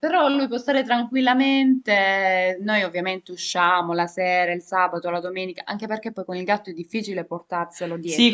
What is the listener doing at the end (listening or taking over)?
taking over